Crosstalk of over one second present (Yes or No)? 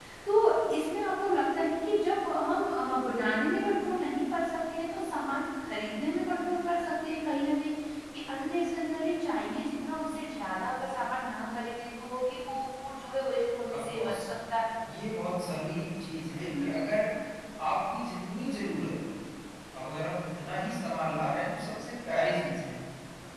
No